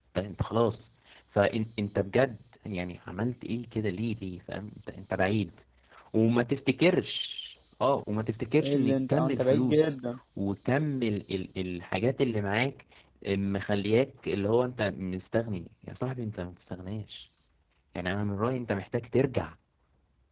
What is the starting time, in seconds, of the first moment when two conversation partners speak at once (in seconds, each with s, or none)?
8.6 s